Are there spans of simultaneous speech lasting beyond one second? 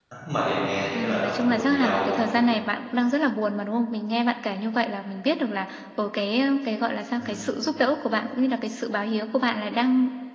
Yes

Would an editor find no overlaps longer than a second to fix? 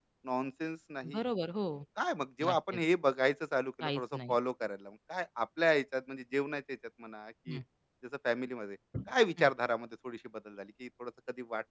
Yes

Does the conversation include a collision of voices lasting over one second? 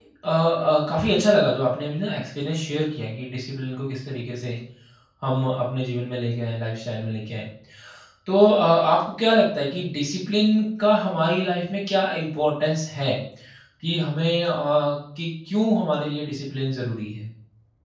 No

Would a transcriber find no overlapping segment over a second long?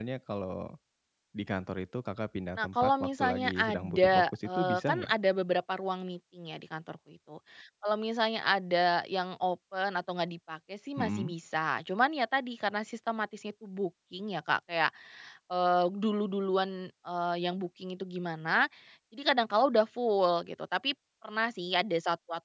No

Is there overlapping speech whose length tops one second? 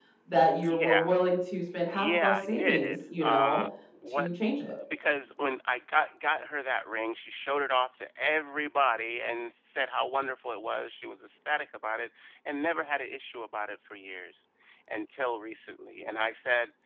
Yes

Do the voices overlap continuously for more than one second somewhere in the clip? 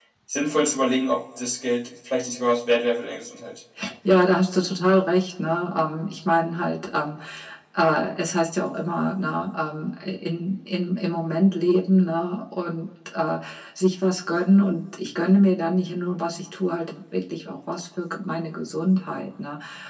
No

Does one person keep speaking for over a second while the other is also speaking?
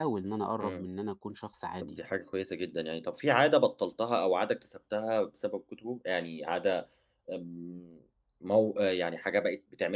No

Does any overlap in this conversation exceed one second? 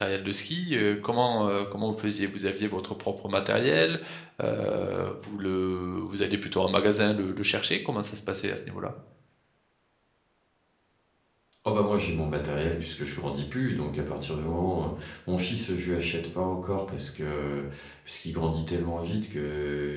No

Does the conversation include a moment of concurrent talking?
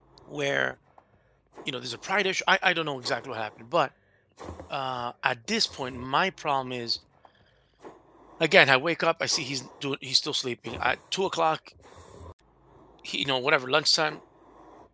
No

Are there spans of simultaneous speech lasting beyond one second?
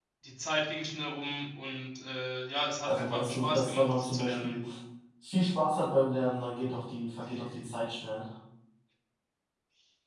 Yes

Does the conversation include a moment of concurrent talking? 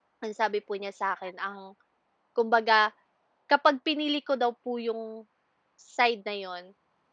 No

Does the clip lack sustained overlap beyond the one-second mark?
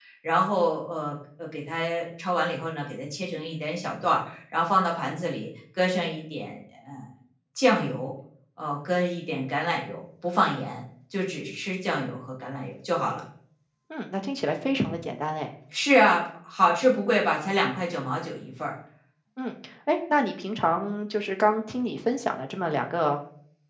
Yes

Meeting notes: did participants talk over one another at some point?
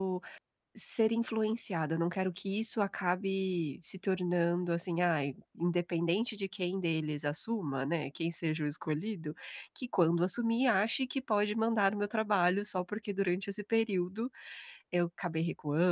No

